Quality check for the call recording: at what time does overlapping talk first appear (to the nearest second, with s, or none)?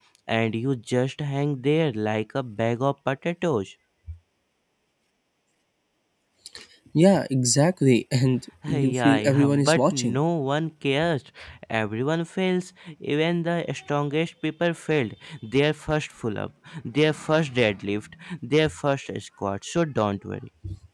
9 s